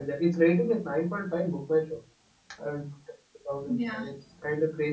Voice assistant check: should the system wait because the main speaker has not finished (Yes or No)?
Yes